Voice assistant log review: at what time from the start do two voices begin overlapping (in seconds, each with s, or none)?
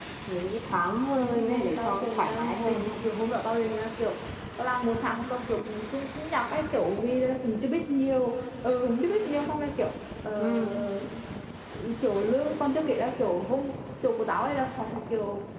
1.2 s